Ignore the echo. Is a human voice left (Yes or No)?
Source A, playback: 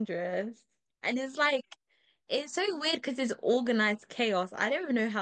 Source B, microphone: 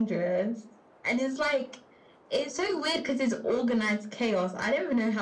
No